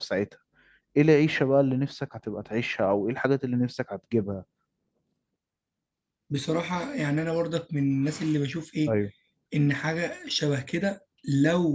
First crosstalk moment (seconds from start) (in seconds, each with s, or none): none